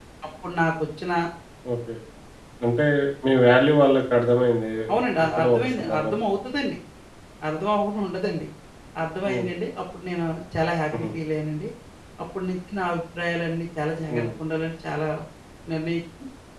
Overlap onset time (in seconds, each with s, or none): 4.9 s